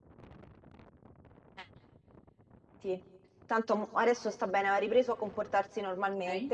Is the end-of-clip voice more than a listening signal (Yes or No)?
No